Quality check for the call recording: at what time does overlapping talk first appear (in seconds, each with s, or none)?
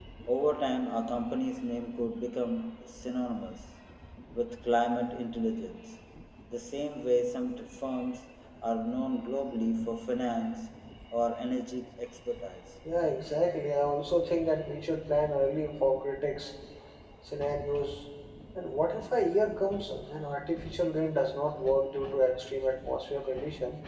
none